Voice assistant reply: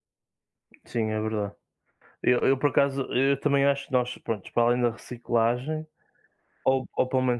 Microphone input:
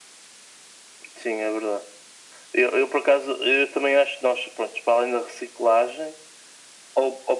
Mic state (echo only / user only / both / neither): echo only